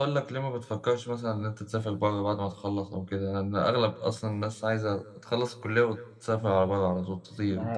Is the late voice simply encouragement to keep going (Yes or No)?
No